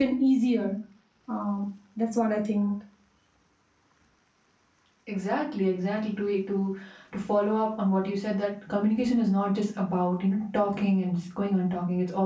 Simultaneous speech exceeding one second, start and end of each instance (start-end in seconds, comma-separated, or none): none